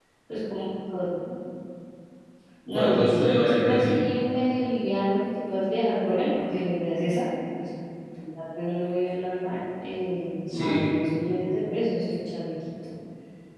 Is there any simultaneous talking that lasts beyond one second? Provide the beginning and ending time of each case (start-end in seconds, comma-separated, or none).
2.7-4.1